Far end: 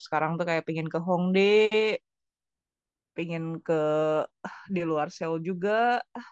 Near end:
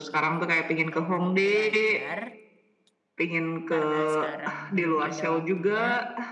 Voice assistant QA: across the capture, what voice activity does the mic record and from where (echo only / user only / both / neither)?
both